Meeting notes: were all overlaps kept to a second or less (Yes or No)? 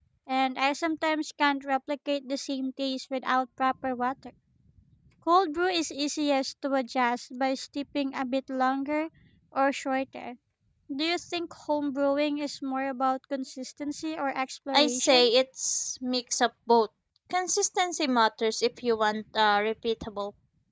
Yes